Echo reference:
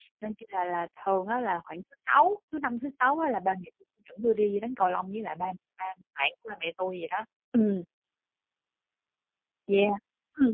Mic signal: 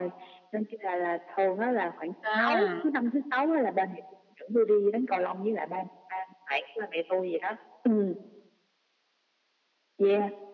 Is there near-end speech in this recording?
Yes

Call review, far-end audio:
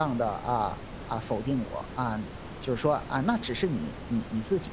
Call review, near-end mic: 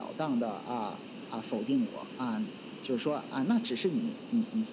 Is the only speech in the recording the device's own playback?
Yes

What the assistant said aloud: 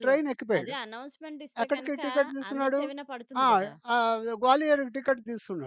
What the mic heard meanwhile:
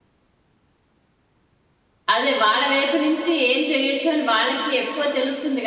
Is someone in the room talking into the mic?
Yes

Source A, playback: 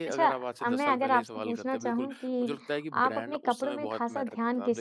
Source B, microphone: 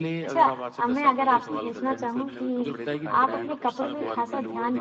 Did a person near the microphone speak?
Yes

